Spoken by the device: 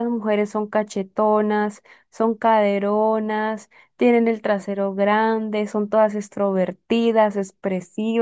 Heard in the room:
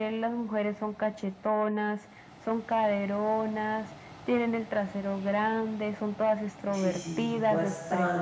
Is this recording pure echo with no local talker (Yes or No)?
No